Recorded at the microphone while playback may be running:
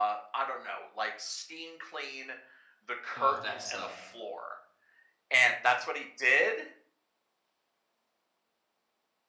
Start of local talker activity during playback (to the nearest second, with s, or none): 3 s